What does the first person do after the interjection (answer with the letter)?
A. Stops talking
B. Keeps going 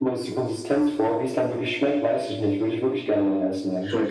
A